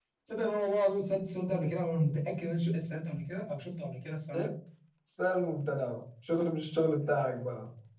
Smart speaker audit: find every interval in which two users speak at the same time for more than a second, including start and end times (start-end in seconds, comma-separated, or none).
none